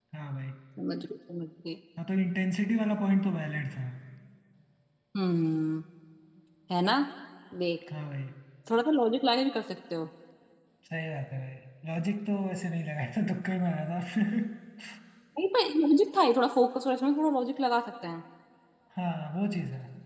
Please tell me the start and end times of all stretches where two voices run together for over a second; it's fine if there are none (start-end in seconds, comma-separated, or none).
none